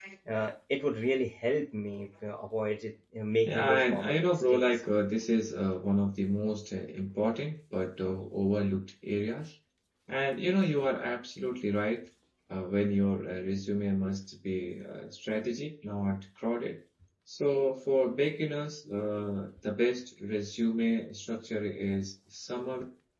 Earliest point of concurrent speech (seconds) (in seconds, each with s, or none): 3.5 s